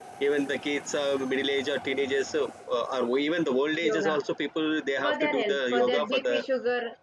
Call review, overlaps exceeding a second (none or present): present